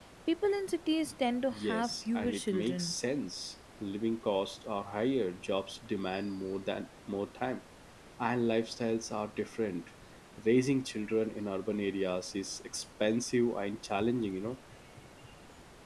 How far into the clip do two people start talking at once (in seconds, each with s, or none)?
1.5 s